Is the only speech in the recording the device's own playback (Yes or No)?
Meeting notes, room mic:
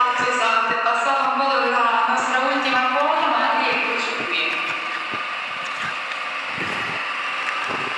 Yes